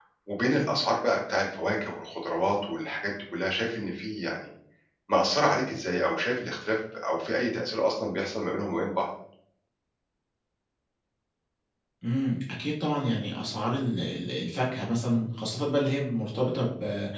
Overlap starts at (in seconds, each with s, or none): none